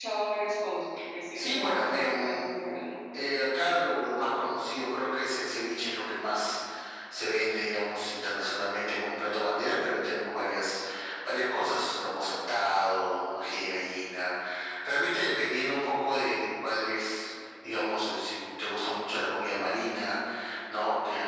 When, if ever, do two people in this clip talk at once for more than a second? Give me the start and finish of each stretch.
1.4-2.6

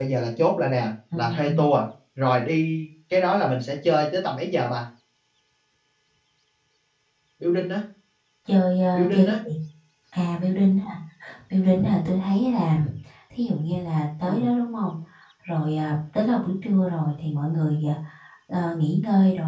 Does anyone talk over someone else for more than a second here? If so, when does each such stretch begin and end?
none

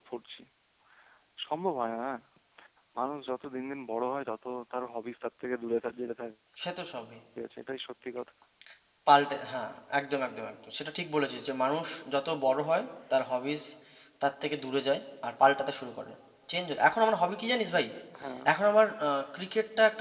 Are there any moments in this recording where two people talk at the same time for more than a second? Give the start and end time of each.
none

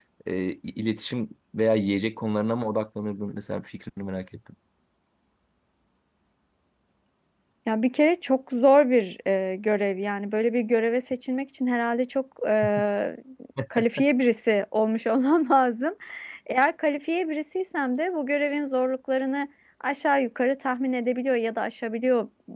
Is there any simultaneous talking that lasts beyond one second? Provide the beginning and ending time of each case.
none

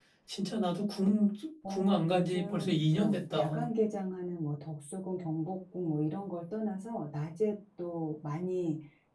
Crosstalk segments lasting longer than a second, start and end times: 1.7-3.7

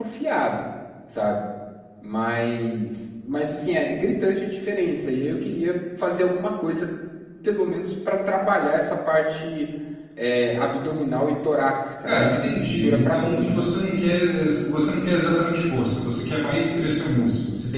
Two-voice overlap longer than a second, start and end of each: 12.1-13.7

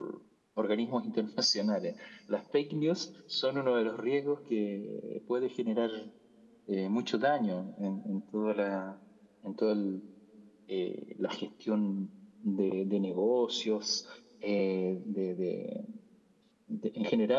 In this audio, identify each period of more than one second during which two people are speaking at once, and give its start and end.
none

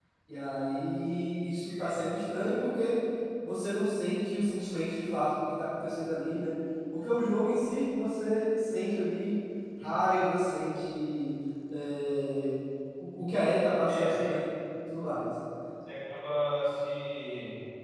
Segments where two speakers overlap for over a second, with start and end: none

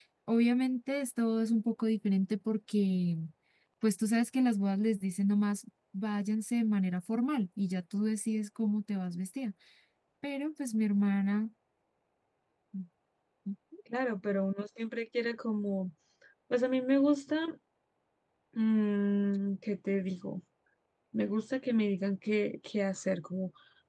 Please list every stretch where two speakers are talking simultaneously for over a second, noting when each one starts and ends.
none

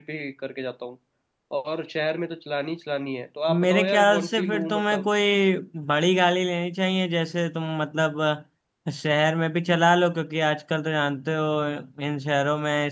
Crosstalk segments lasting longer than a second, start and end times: 3.5-5.0

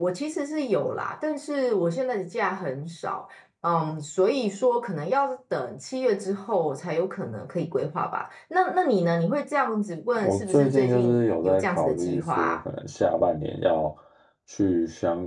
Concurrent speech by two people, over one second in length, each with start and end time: 10.2-12.6

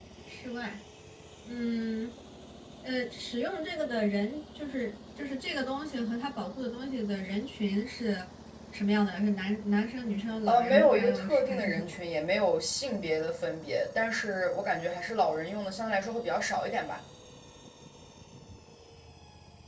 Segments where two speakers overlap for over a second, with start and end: 10.5-12.0

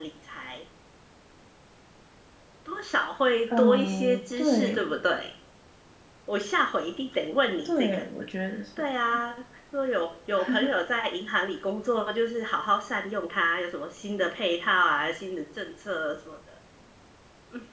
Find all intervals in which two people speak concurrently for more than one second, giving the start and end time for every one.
3.5-4.9

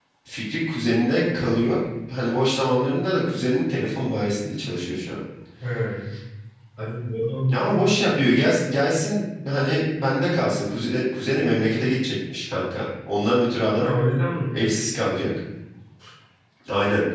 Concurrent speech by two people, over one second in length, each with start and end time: none

